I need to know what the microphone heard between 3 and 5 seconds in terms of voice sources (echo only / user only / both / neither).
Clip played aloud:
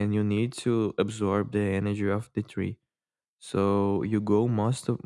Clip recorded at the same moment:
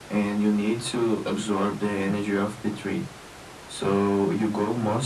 echo only